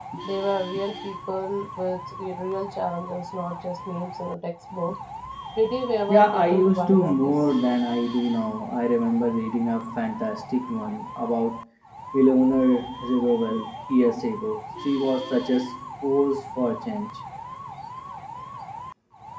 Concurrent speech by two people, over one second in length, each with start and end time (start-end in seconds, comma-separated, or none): 6.1-7.3